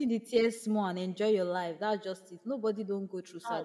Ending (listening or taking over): listening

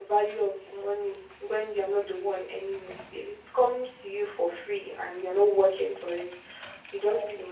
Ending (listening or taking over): listening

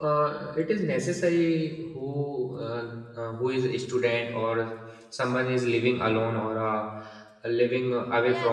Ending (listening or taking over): taking over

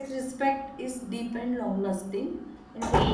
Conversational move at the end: listening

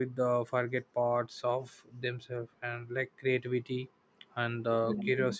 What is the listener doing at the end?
listening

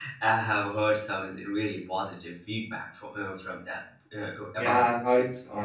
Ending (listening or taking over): taking over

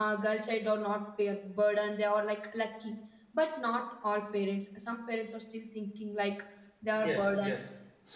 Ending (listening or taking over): taking over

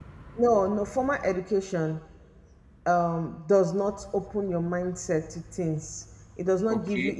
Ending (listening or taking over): listening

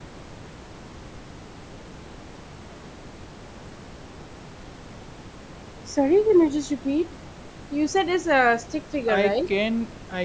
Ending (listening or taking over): taking over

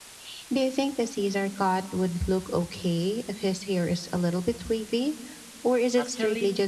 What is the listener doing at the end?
taking over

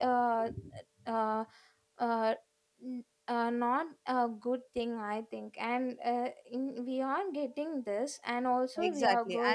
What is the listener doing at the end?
taking over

